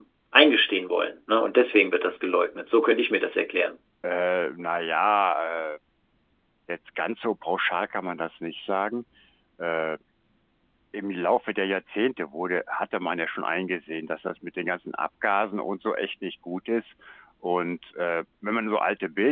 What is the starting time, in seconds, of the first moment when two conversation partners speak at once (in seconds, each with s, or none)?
none